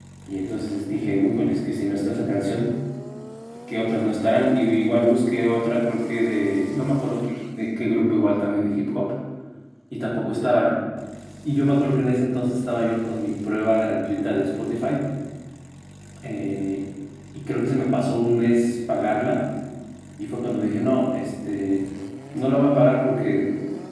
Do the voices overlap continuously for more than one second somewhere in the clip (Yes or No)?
No